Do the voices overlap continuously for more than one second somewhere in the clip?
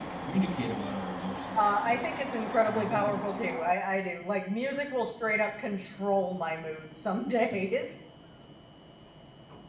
Yes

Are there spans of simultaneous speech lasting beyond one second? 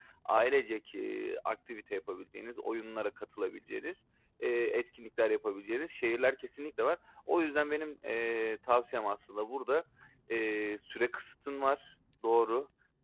No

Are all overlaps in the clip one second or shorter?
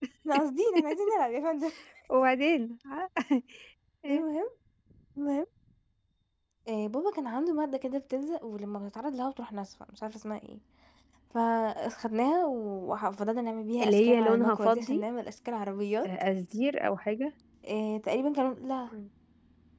No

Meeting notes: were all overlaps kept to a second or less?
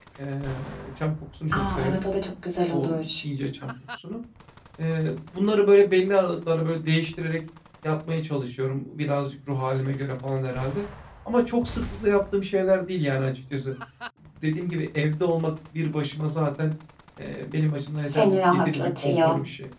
No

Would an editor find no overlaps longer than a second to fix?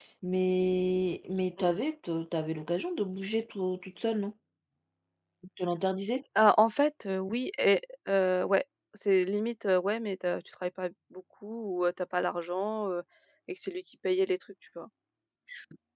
Yes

